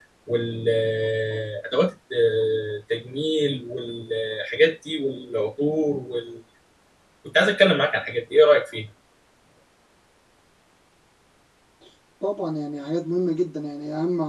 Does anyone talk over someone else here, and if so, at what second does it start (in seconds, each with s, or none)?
none